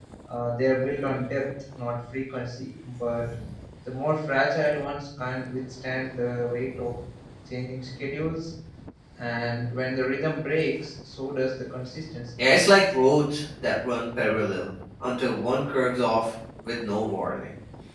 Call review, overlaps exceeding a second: none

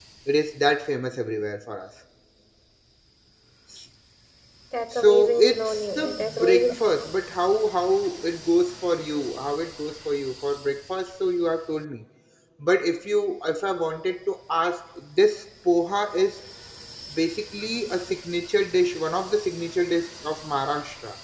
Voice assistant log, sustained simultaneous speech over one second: present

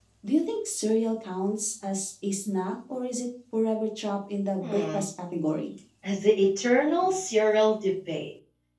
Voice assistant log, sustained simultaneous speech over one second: none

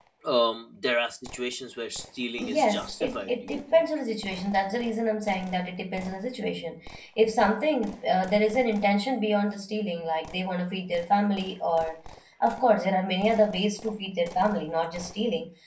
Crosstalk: present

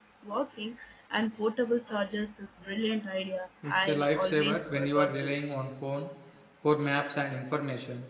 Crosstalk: present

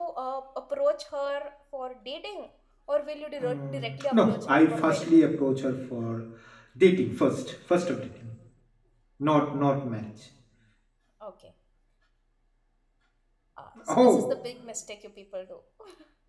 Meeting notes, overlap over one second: present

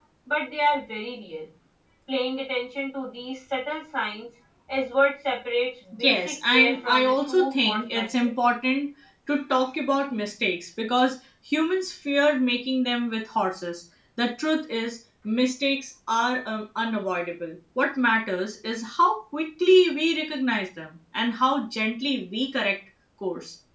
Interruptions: present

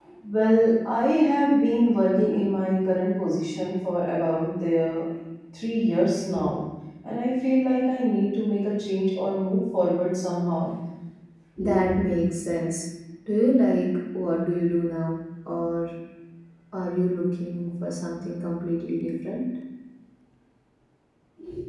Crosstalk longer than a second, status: none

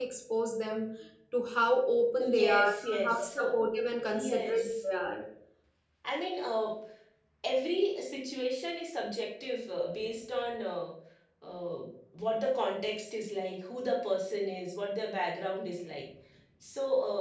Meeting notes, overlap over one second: present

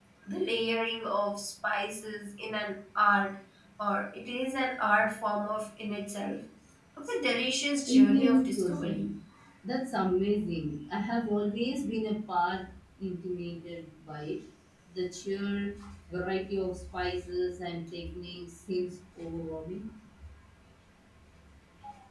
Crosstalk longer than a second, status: present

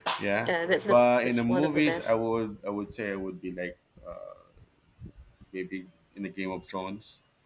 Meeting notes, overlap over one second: present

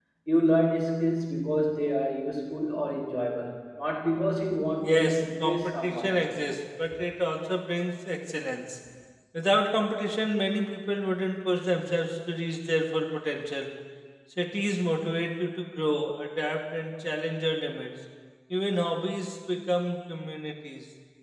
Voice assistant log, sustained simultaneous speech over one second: present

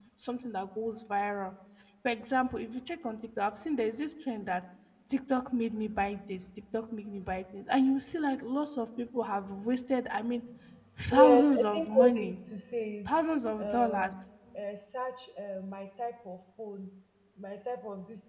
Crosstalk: present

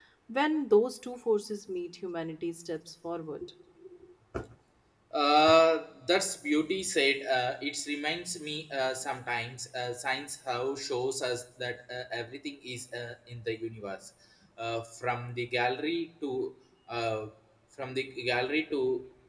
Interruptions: none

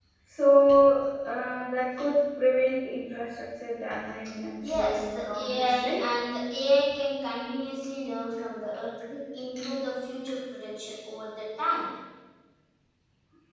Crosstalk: present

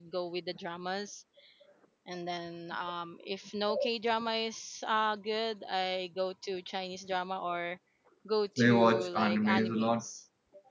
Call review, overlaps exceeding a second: present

